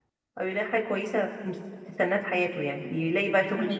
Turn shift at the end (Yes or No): No